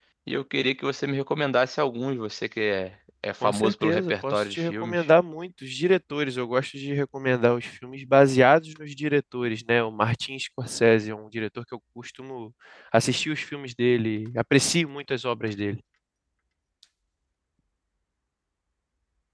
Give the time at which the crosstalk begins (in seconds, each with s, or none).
3.4 s